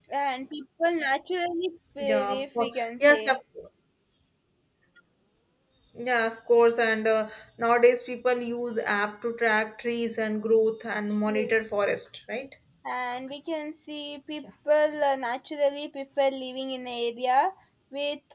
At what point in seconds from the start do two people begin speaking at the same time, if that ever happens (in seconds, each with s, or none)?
2.0 s